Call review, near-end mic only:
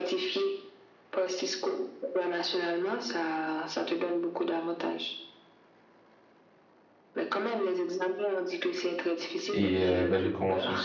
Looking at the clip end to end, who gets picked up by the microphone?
both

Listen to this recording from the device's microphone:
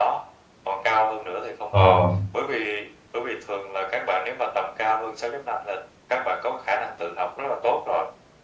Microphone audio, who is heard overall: both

